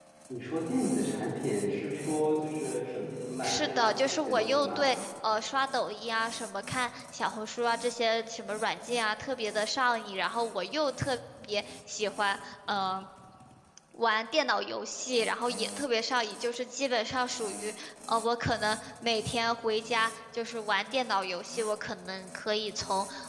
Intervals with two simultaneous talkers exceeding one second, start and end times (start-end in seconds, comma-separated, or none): 3.4-4.9